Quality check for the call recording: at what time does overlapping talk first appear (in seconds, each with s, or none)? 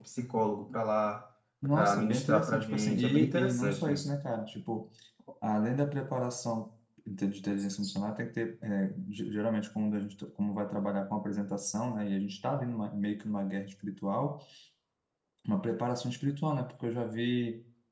1.7 s